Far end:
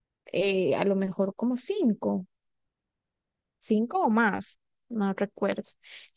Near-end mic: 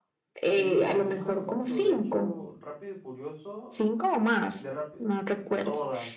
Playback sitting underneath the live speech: No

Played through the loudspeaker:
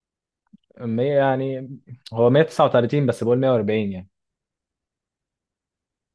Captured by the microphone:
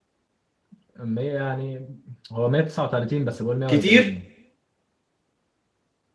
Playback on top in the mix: No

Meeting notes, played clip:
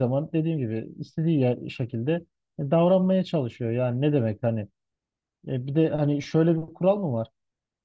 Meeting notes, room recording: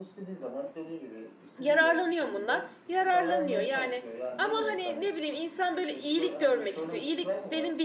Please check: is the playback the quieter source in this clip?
Yes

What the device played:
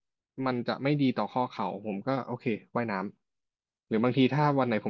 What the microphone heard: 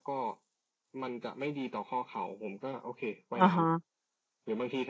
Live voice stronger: Yes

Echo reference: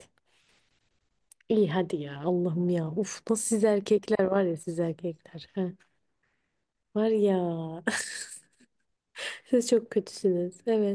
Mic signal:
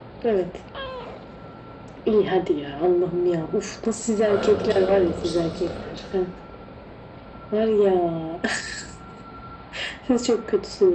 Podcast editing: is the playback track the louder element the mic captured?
Yes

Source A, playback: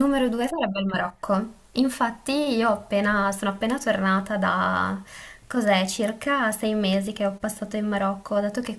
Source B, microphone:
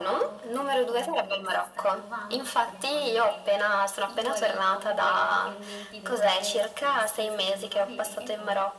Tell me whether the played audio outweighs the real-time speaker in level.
Yes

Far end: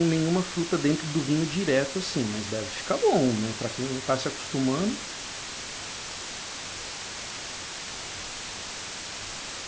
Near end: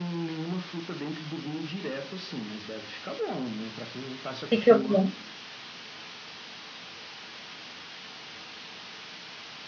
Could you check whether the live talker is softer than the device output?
No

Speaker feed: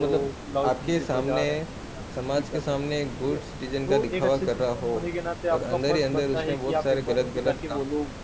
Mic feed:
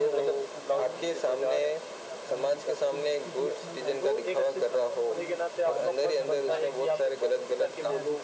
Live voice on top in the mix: No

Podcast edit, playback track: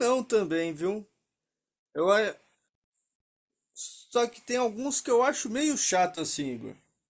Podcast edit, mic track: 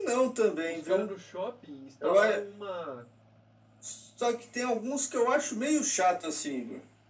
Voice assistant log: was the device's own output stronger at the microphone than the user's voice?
Yes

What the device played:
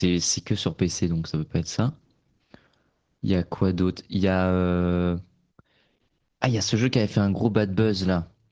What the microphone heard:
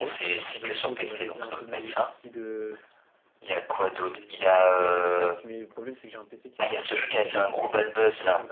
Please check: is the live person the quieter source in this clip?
Yes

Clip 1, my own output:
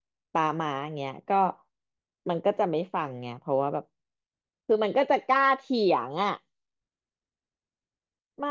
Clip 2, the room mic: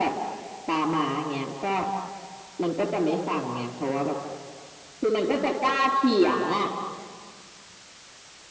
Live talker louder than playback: No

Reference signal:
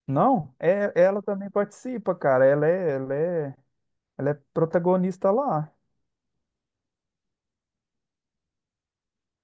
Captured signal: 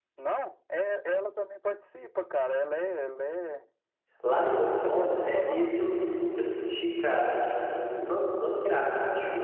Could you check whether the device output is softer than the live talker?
Yes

